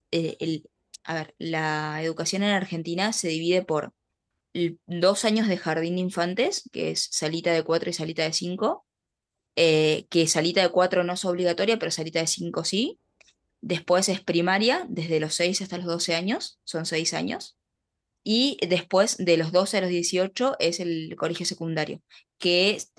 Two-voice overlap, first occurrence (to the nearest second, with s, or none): none